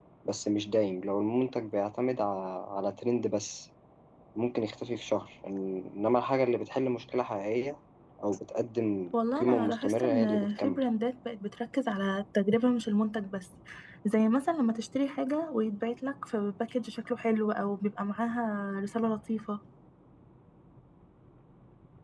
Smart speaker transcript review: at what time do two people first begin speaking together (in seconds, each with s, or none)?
9.1 s